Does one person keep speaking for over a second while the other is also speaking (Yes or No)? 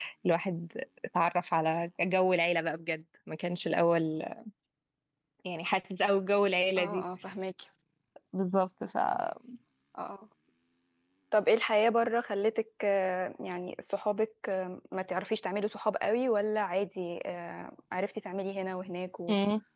No